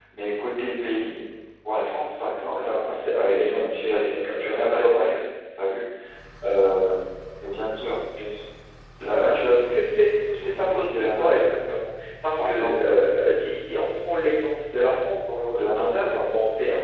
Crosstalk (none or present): present